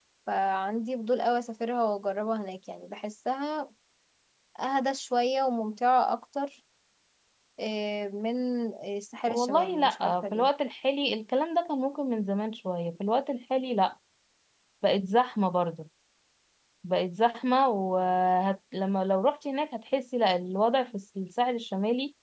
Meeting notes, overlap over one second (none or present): present